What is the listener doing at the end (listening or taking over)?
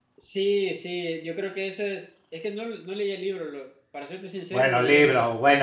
taking over